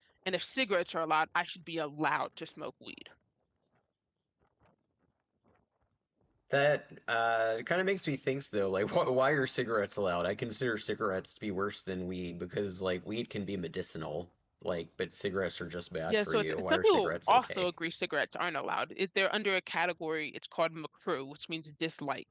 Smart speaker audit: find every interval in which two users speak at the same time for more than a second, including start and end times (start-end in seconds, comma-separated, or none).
16.1-17.7